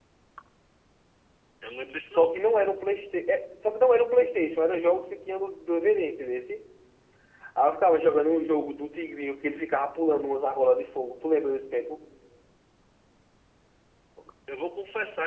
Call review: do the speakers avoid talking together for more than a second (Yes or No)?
Yes